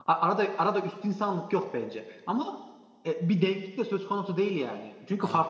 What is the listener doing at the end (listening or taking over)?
listening